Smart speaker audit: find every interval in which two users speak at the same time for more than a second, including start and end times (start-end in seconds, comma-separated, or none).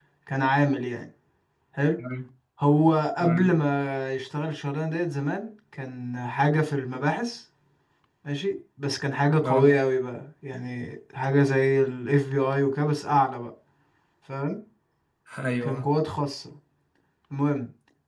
none